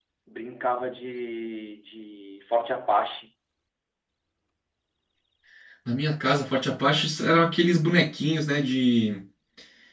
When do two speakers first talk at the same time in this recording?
none

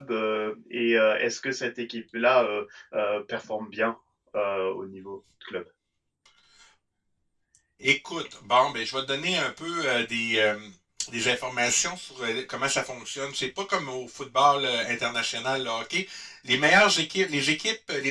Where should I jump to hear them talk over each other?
none

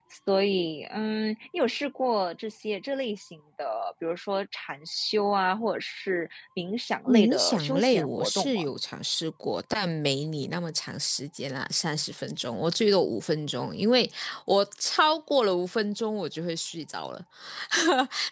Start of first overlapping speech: 7 s

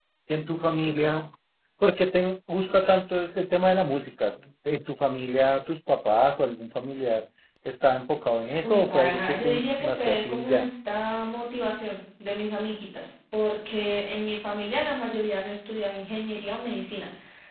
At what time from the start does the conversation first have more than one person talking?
9 s

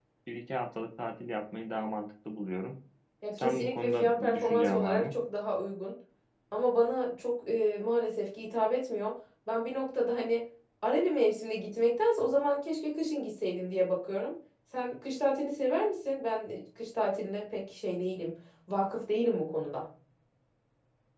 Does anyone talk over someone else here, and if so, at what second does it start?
3 s

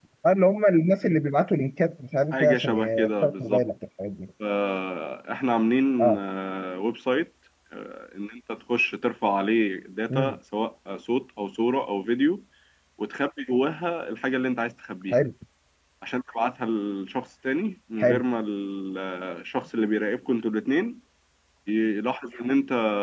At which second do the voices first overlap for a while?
2 s

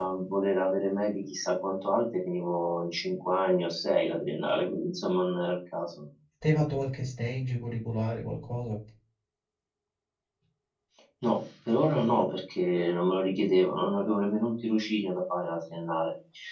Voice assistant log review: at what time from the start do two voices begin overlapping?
none

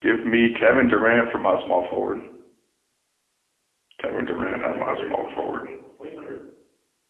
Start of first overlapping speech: 4 s

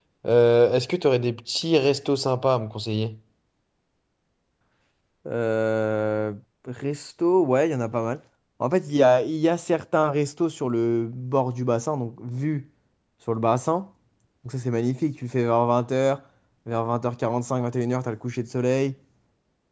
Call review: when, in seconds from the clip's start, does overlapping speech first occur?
none

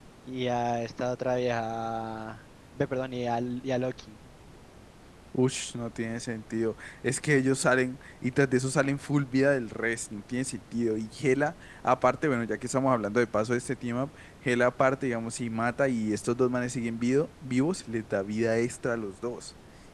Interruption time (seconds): none

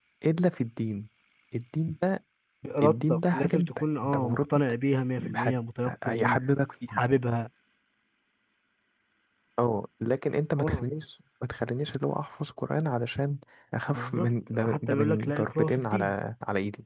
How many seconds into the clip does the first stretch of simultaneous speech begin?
3 s

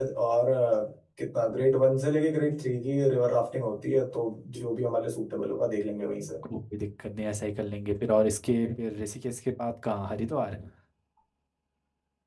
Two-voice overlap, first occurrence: none

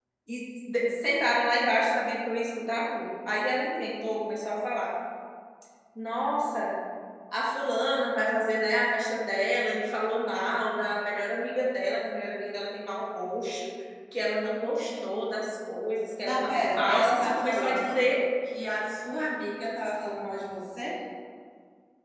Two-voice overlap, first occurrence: 16 s

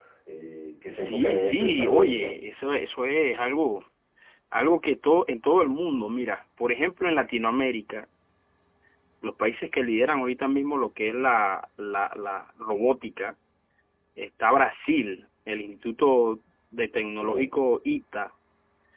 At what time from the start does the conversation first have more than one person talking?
1 s

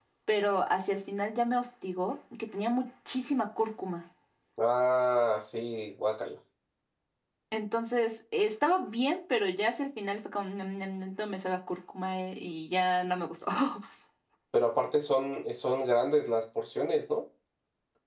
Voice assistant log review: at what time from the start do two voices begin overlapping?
none

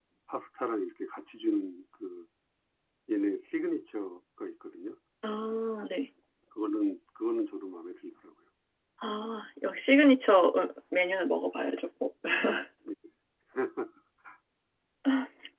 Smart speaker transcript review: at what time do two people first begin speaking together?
none

